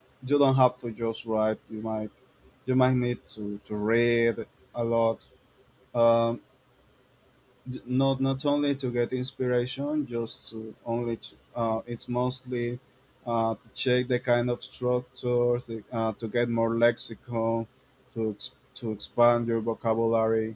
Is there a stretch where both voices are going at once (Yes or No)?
No